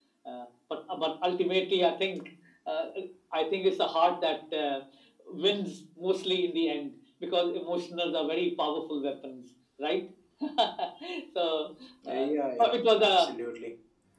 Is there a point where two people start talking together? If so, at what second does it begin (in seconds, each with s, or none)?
12.1 s